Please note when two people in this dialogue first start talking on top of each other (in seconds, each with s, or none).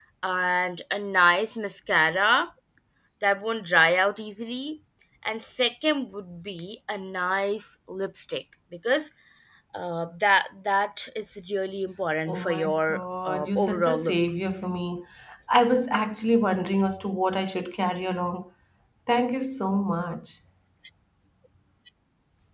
12.3 s